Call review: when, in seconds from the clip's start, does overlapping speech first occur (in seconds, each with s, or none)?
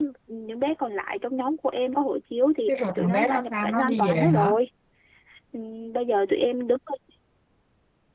2.7 s